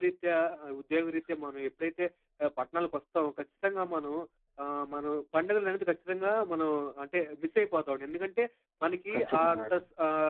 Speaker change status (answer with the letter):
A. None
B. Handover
A